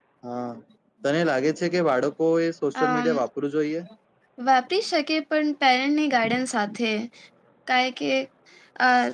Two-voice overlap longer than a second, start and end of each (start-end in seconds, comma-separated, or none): none